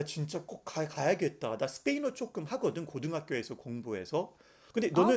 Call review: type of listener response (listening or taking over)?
listening